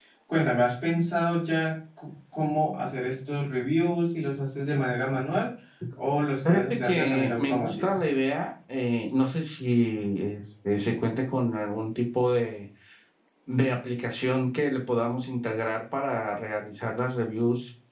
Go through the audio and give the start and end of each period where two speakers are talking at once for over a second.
6.4-8.0

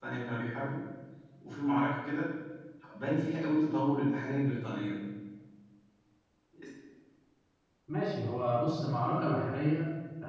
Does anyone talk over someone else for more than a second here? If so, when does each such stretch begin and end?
none

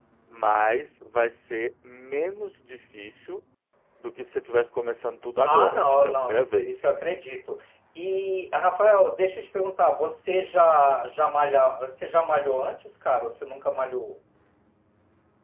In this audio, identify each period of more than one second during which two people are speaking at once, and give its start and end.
5.5-6.7

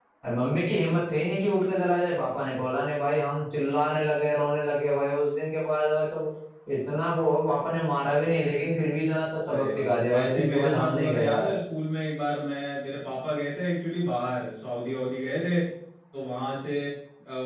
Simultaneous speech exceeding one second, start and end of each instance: 9.5-11.6

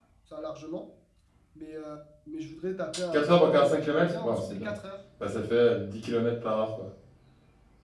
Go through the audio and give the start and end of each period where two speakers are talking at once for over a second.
3.1-4.7

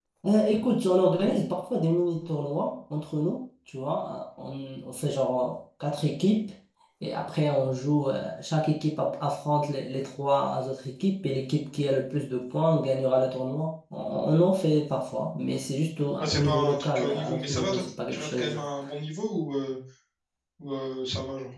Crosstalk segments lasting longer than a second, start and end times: 16.2-18.6

